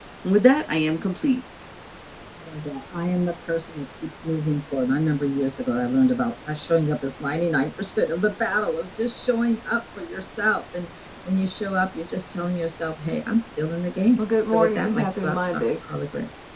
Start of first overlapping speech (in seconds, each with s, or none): 14.2 s